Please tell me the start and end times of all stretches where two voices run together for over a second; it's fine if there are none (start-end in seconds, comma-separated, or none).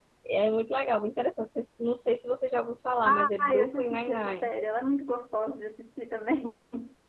3.0-4.5